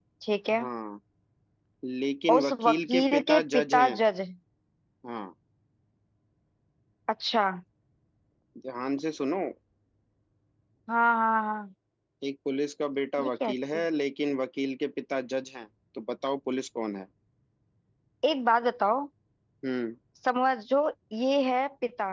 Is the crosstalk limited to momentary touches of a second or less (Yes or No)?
No